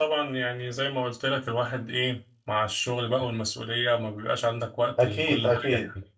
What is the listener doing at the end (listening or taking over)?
taking over